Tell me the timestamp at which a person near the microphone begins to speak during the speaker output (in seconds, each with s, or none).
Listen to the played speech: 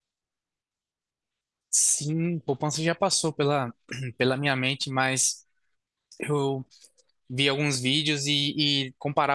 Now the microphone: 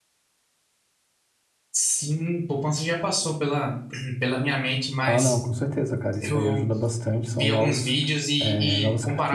5.0 s